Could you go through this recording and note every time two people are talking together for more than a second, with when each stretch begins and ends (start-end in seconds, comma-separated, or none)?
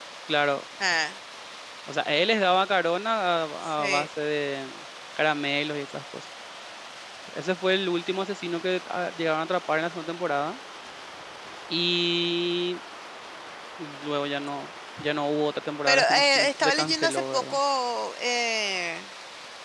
15.9-17.6